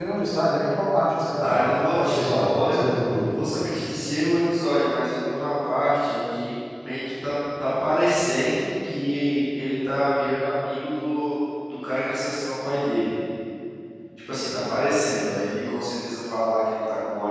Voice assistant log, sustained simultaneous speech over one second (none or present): present